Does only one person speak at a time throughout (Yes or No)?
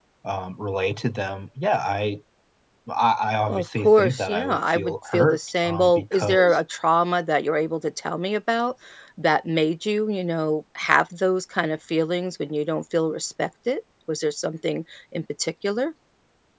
No